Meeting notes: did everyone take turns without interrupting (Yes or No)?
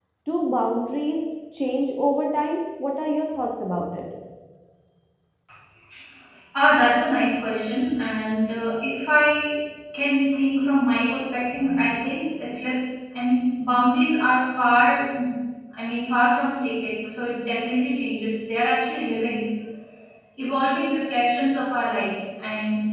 Yes